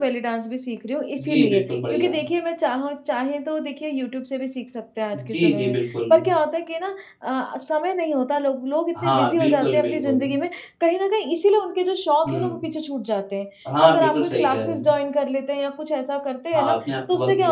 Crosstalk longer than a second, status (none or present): present